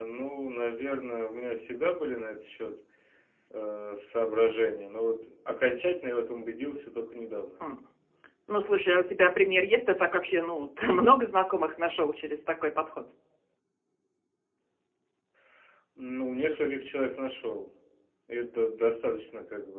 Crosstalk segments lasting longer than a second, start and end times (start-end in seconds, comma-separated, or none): none